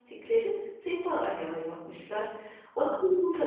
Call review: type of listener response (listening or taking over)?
listening